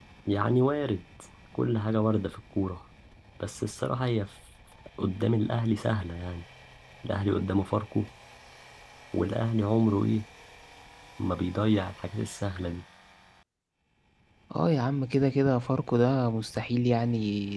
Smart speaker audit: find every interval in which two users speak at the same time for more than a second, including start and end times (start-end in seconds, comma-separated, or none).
none